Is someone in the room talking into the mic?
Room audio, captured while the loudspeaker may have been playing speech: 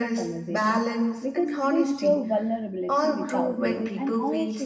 Yes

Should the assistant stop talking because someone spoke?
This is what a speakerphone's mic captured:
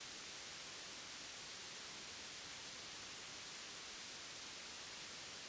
No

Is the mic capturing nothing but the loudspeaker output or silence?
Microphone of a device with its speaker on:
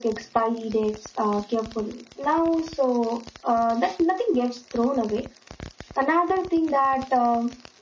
Yes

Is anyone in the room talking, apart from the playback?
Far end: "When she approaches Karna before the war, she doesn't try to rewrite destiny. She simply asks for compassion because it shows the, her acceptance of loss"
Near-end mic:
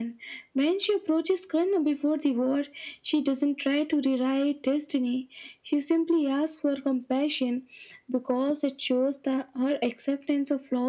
No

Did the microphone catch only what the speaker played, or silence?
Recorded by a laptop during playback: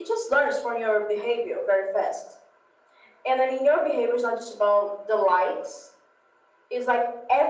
Yes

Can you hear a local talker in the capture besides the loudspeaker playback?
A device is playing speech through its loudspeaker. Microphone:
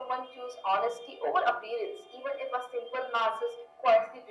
No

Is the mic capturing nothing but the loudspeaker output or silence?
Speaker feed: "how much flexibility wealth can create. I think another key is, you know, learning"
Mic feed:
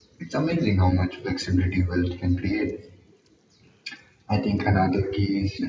Yes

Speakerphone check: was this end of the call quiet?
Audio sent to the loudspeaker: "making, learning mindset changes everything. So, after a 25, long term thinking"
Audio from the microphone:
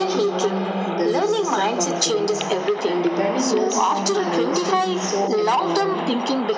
No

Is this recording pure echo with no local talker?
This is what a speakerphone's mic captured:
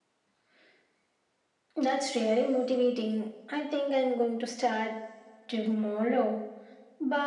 Yes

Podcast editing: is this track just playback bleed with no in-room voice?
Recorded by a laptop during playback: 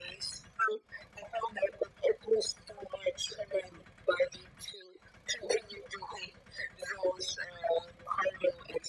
Yes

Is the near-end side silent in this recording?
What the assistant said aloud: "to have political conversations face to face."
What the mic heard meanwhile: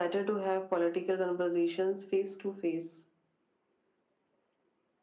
Yes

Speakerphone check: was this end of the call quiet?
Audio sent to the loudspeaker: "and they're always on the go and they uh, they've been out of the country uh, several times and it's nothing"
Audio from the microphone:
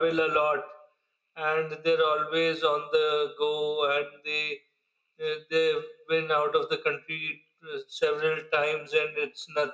Yes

